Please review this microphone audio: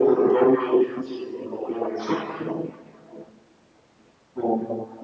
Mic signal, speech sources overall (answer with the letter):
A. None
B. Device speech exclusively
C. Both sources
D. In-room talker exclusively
B